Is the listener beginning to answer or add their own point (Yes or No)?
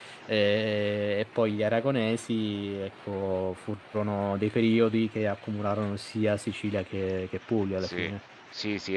Yes